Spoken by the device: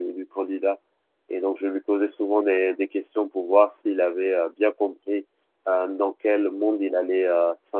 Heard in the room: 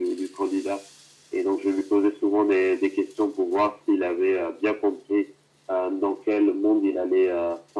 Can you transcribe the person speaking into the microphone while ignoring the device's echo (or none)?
none